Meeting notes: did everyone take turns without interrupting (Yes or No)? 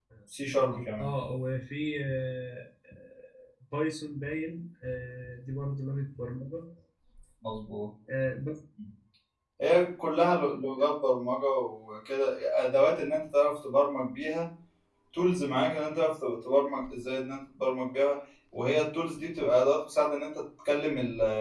Yes